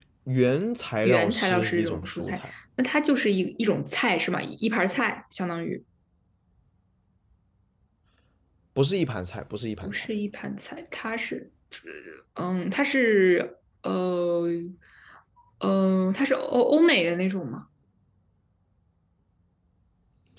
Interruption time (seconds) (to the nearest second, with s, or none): 1 s